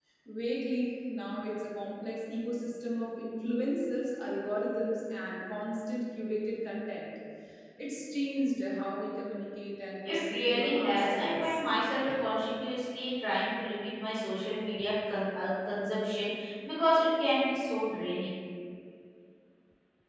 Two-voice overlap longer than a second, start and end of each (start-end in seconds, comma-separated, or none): 10.1-11.6